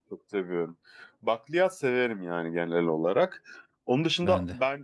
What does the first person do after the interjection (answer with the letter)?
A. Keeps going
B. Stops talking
A